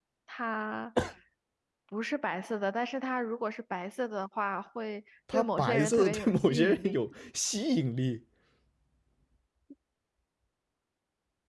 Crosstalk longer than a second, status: present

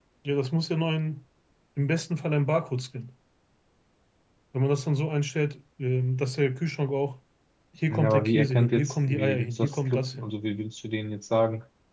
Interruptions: present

